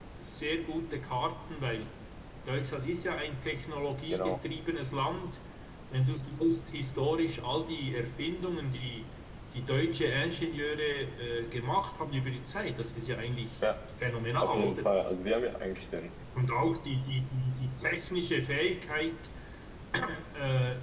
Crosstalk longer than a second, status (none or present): none